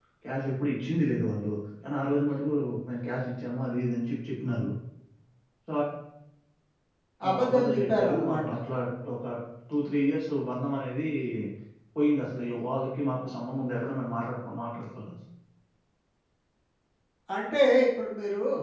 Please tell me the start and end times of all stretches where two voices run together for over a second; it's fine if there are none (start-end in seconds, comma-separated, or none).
7.3-8.5